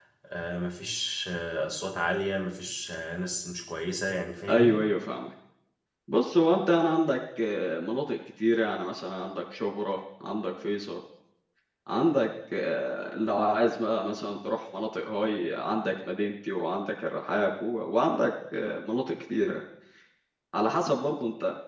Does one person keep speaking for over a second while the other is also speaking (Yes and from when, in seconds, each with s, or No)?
No